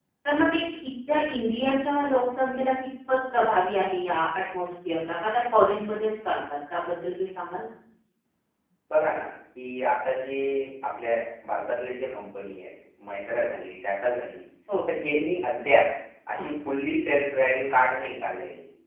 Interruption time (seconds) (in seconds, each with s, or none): none